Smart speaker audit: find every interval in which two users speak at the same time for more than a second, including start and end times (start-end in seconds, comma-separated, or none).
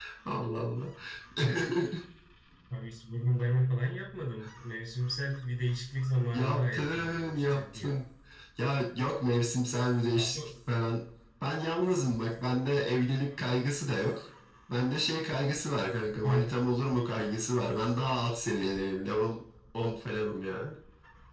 6.3-7.9